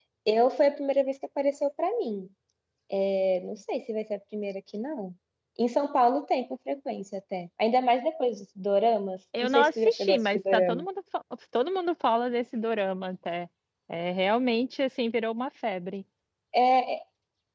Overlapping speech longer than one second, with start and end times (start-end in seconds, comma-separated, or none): 9.4-10.8